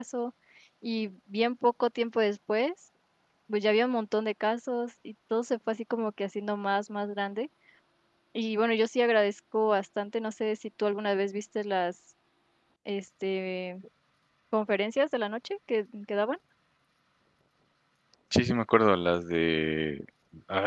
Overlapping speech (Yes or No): No